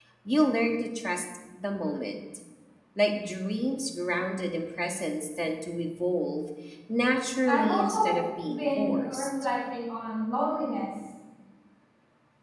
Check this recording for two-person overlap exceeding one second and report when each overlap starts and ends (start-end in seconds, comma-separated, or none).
7.5-9.3